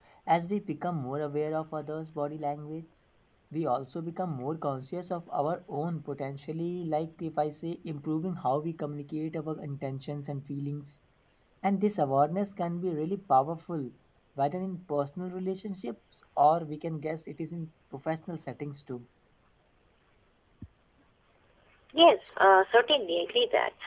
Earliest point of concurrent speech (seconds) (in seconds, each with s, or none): none